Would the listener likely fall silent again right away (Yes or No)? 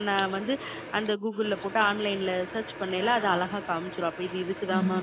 Yes